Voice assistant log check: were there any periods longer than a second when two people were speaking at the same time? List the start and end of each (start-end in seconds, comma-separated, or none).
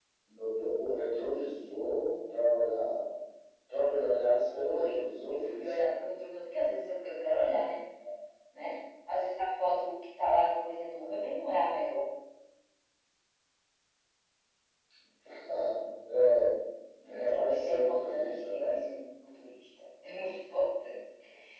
4.5-5.9, 17.1-18.8